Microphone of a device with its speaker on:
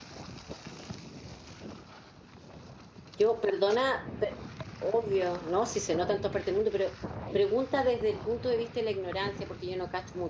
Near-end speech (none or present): present